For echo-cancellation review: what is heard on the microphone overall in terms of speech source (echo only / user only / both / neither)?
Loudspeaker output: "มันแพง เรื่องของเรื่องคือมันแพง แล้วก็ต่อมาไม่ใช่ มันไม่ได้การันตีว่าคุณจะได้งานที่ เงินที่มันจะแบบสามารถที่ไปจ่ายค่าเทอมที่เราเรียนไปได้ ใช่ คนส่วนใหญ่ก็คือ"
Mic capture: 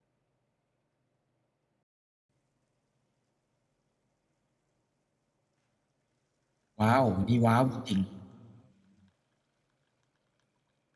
user only